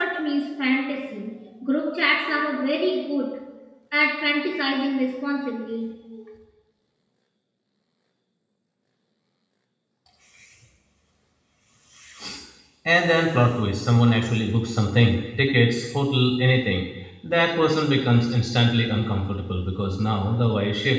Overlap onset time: none

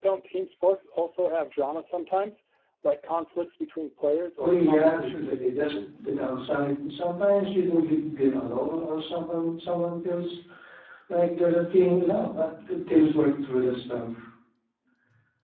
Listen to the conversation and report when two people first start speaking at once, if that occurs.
4.4 s

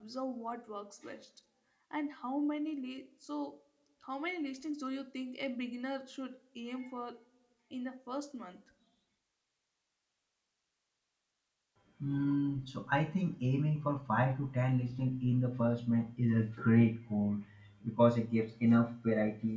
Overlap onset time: none

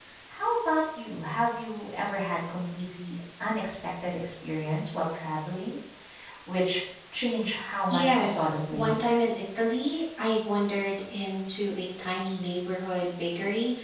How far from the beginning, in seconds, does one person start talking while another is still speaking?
7.9 s

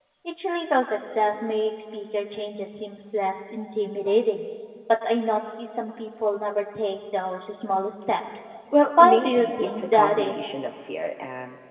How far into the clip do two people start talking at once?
9.0 s

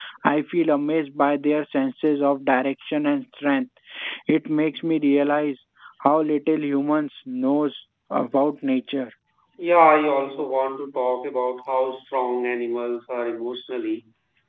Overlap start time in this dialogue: none

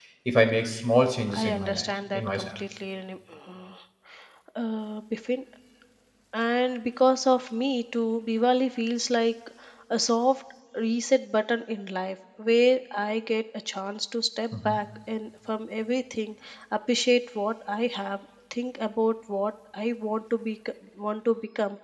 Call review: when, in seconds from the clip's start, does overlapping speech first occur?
1.3 s

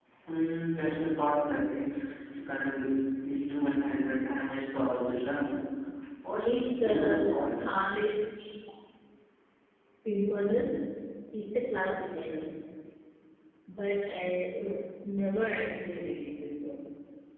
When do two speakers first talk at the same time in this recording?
6.4 s

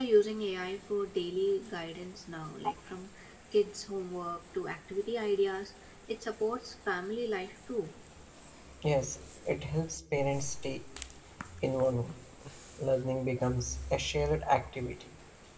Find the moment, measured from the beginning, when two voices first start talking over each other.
none

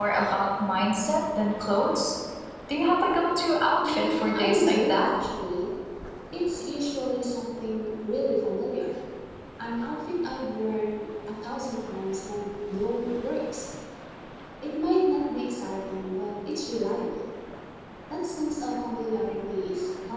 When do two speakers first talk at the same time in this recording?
3.8 s

